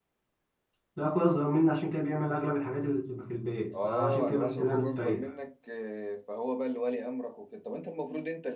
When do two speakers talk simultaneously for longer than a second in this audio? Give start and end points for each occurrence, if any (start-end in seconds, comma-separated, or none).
3.8-5.2